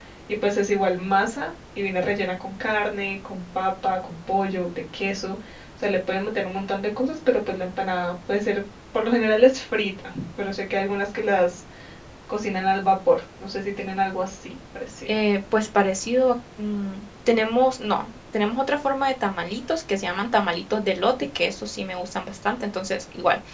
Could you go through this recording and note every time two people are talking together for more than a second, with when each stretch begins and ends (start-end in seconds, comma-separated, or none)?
none